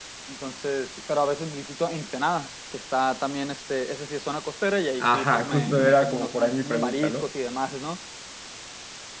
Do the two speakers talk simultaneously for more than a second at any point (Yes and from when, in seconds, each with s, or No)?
Yes, from 5.0 s